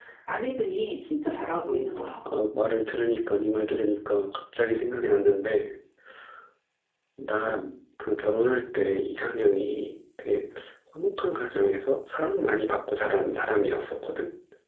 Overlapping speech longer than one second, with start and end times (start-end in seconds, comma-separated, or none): none